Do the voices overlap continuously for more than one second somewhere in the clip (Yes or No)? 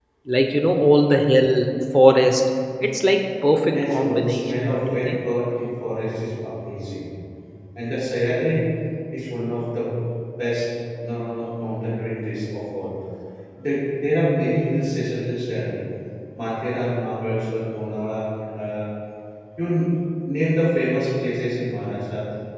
Yes